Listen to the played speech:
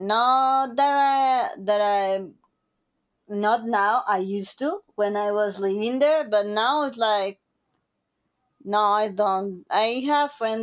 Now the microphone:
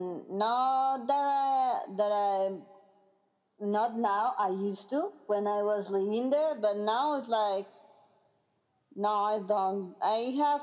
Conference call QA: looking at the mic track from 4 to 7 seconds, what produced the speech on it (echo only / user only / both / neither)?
echo only